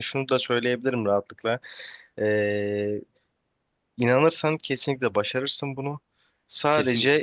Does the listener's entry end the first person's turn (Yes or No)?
No